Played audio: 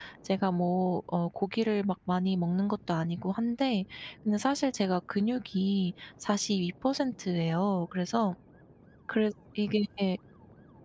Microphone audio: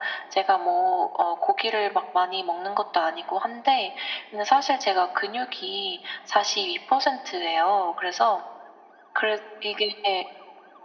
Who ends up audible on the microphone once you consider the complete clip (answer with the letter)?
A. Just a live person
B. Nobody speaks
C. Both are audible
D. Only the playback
D